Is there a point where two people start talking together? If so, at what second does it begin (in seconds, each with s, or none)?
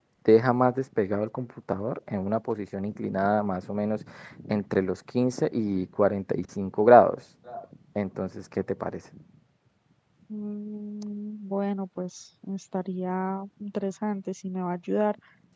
none